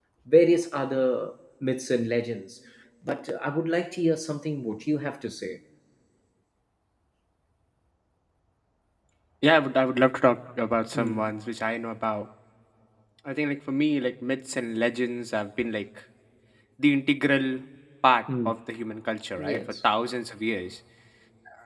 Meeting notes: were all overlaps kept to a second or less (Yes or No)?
Yes